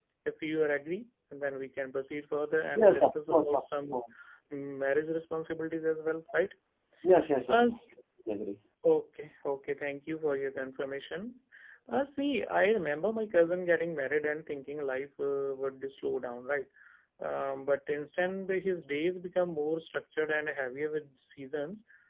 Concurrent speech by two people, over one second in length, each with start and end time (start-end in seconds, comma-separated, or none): 2.7-4.0